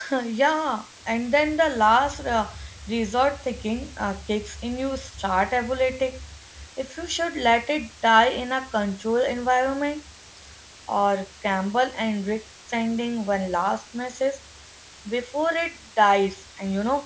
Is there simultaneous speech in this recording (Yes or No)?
No